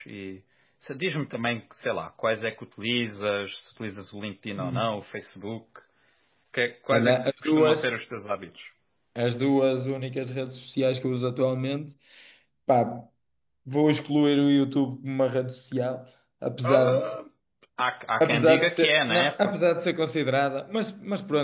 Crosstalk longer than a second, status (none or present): present